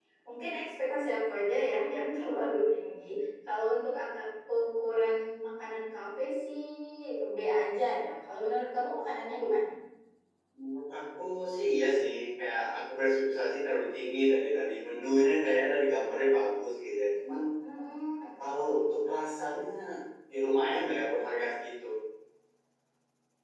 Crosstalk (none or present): none